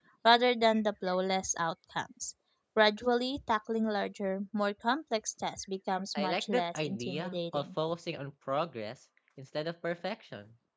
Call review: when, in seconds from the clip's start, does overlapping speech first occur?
6 s

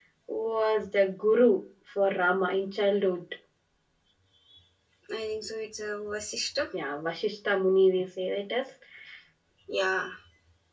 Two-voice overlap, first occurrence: none

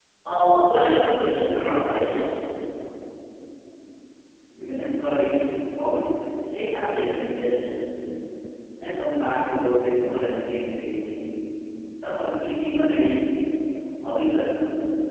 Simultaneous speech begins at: 1 s

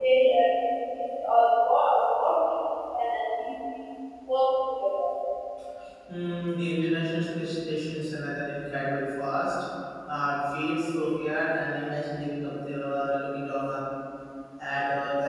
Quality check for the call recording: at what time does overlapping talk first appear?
none

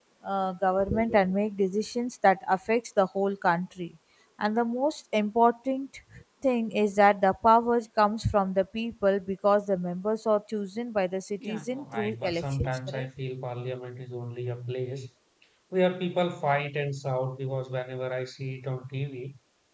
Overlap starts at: 11 s

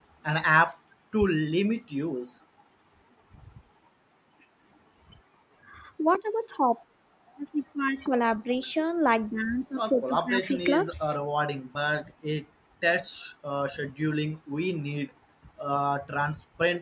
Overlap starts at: 10 s

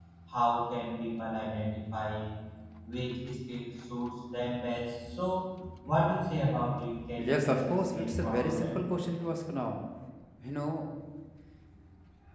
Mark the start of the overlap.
7 s

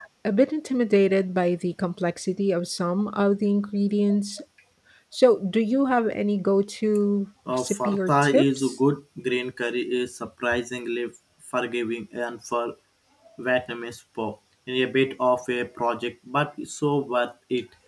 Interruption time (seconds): 7 s

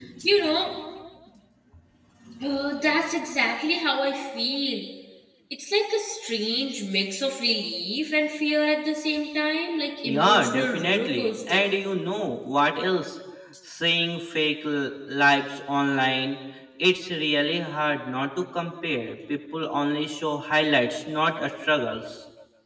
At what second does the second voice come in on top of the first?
10 s

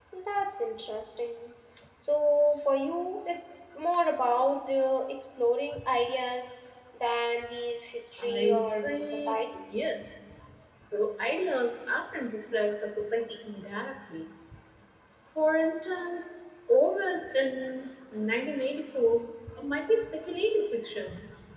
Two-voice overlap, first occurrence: 8 s

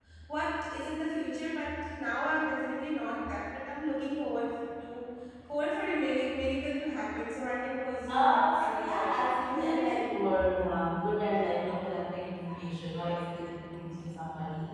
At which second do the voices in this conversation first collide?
8 s

